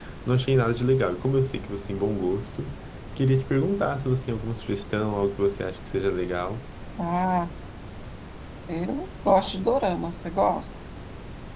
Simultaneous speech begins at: none

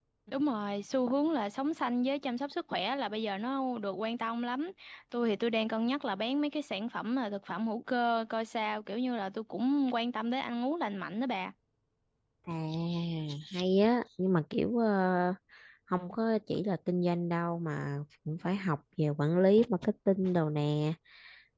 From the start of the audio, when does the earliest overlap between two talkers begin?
none

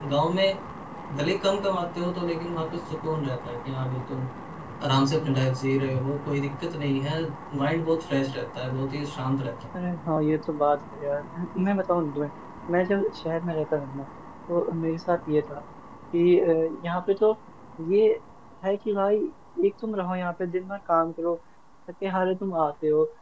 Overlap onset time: none

